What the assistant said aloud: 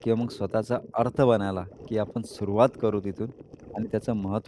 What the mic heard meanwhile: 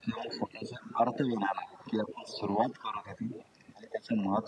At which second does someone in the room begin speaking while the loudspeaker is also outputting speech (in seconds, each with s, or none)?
none